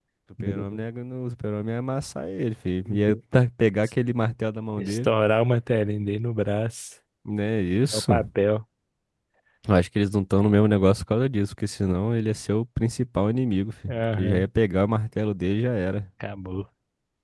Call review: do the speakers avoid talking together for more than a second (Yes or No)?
Yes